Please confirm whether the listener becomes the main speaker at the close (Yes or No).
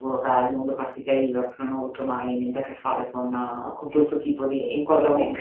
Yes